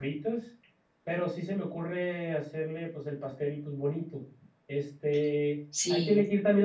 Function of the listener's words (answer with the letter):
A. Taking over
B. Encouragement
B